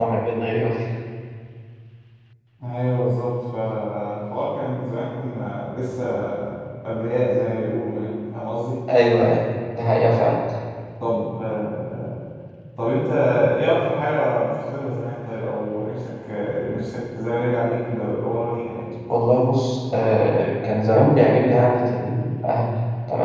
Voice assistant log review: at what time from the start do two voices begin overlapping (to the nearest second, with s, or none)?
none